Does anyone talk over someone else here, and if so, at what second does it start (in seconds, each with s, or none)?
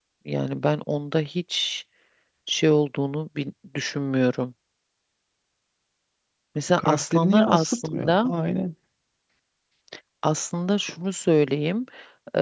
6.8 s